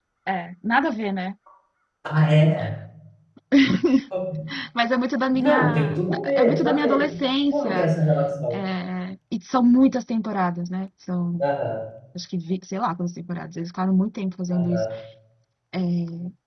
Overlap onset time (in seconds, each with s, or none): 5.3 s